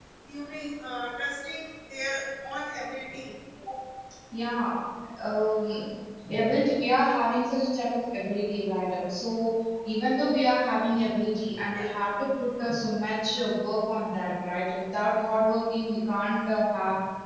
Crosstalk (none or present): none